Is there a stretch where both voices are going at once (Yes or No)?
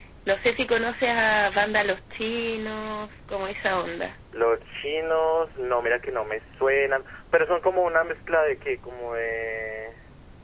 No